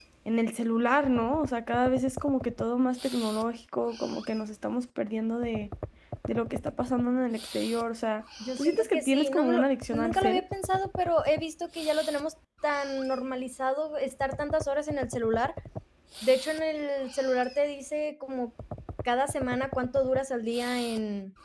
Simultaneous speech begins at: 8.4 s

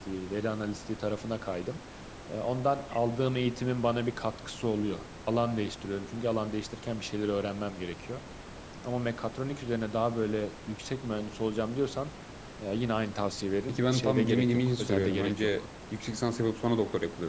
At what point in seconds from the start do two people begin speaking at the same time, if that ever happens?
13.7 s

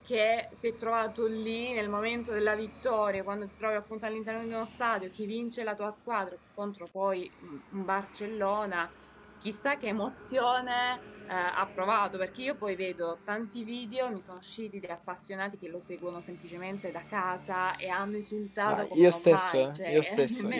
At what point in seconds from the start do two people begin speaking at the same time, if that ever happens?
18.7 s

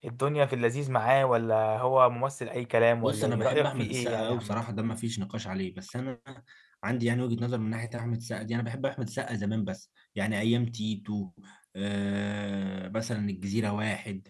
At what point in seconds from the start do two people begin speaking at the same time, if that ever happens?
3.0 s

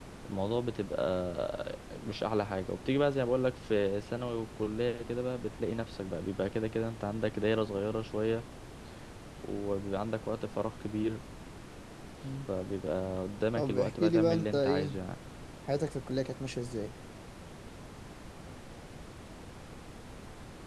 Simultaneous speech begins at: 13.6 s

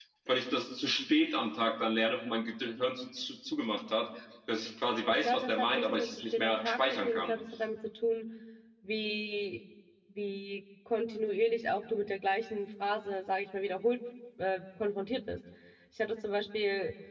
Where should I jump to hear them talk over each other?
5.2 s

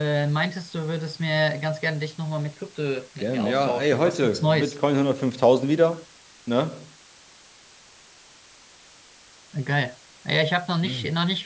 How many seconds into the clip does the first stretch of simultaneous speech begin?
3.2 s

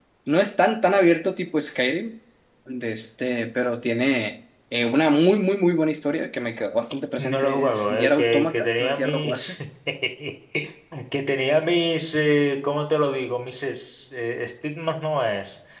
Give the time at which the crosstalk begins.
7.2 s

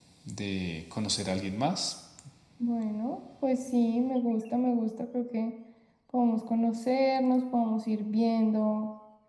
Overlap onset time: none

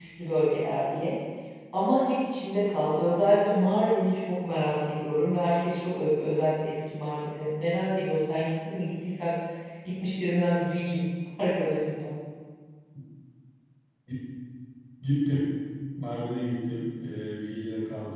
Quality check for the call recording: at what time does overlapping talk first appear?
none

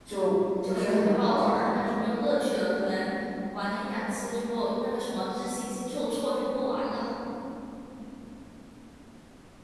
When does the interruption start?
0.6 s

